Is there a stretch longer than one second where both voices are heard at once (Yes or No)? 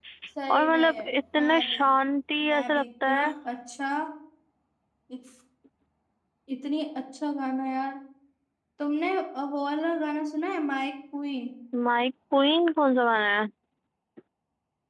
Yes